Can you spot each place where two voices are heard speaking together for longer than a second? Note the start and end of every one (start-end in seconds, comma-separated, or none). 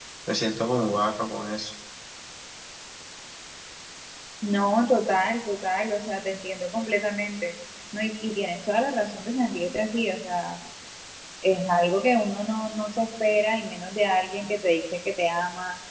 none